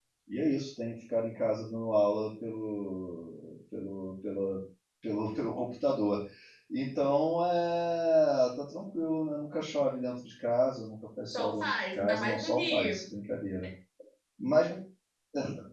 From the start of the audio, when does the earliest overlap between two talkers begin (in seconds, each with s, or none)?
11.3 s